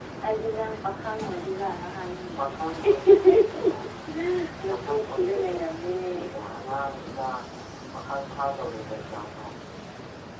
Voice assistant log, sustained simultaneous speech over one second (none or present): present